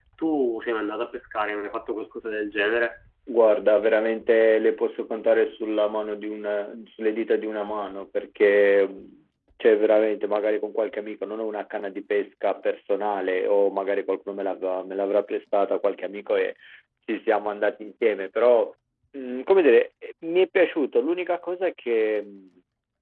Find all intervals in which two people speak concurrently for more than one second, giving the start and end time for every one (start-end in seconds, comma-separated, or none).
none